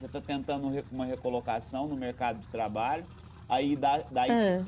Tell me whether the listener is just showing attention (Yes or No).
Yes